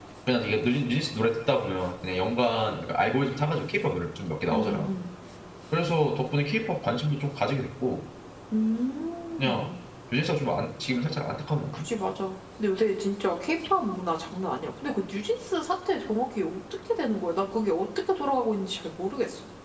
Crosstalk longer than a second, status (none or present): none